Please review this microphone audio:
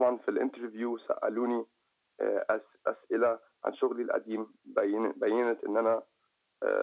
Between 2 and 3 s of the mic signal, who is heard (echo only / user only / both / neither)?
echo only